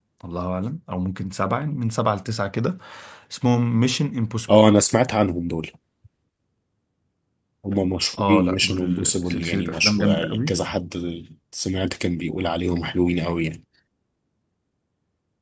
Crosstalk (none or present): present